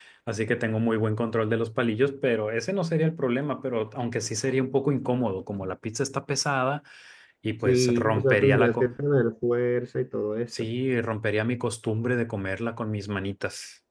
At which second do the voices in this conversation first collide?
7.6 s

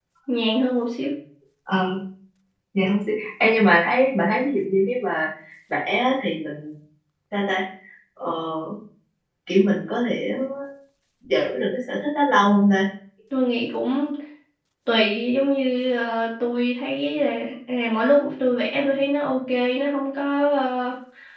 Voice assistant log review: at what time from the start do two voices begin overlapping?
none

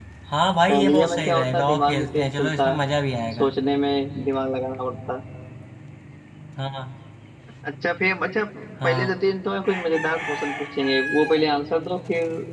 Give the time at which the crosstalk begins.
0.7 s

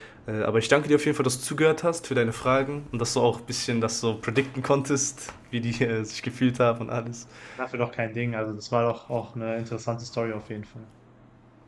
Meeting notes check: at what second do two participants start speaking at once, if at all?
none

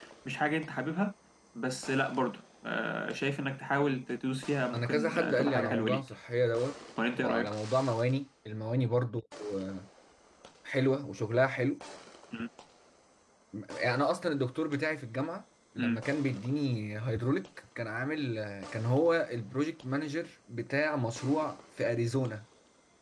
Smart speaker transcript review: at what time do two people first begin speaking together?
4.7 s

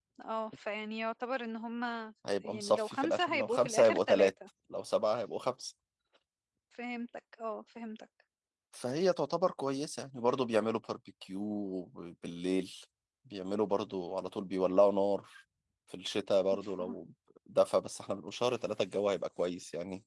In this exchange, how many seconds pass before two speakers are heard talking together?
2.4 s

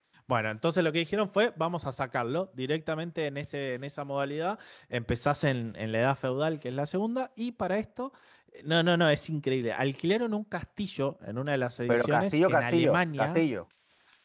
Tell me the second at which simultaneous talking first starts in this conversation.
11.9 s

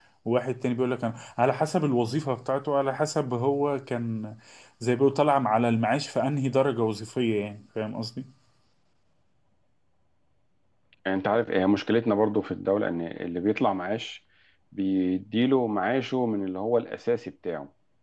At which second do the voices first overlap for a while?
none

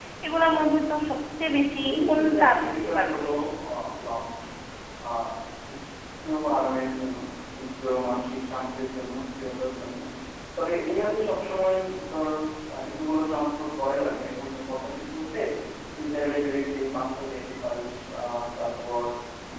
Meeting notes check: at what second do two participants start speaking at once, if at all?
1.8 s

